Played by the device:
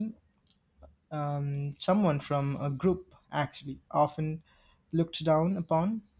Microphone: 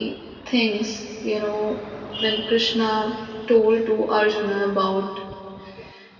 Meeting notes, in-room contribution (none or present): present